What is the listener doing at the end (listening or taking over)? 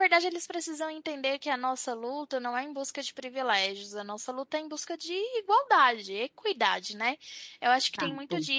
listening